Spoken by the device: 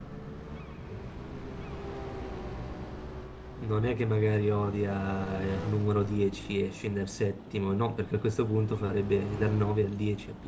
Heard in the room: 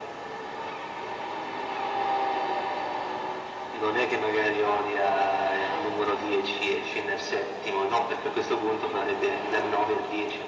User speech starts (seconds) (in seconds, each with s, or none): none